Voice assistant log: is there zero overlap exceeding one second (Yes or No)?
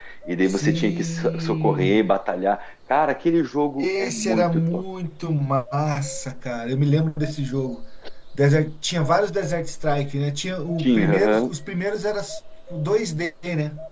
No